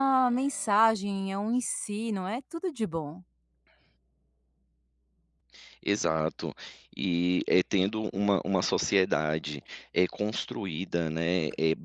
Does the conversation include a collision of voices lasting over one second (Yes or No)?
No